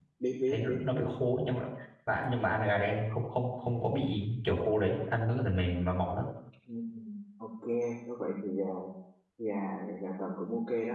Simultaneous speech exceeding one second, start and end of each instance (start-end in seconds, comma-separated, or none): none